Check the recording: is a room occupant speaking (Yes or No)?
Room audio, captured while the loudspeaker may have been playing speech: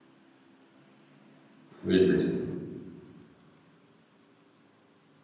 Yes